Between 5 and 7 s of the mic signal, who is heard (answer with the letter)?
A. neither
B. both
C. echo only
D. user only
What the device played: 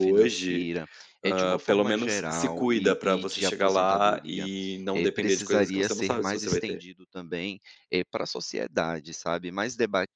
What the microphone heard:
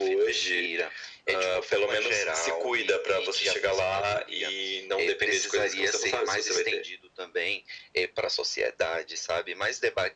C